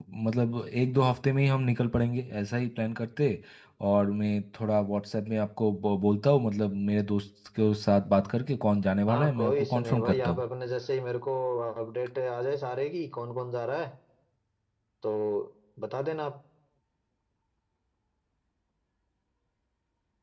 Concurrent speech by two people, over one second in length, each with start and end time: 9.1-10.4

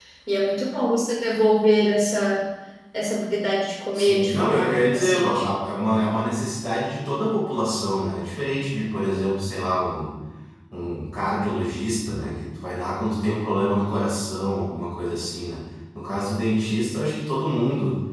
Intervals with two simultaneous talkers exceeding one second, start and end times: 3.9-5.5

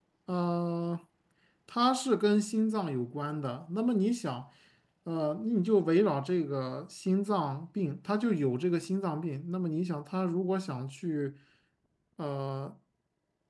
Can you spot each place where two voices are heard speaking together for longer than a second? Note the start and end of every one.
none

